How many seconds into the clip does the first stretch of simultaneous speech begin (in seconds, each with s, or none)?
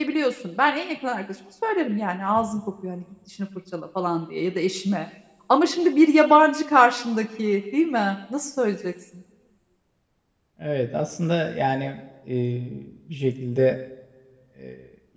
none